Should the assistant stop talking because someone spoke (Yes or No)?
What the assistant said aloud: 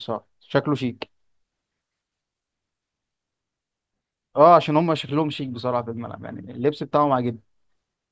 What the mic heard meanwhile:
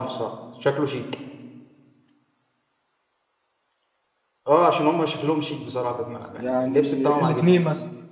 Yes